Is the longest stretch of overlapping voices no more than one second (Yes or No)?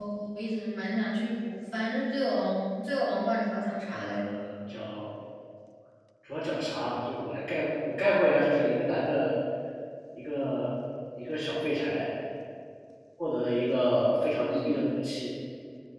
Yes